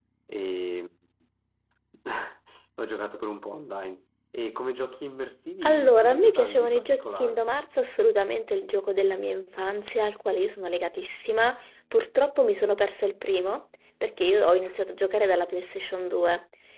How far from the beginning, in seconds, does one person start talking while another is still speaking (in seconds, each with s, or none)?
5.6 s